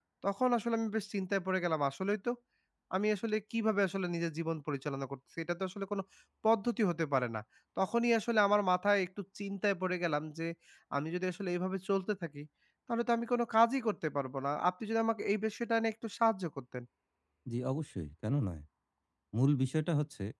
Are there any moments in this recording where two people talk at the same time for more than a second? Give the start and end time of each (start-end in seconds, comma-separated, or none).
none